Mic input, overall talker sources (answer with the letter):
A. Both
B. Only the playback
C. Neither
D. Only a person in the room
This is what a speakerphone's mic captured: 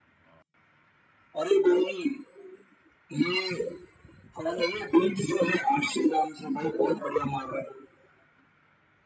B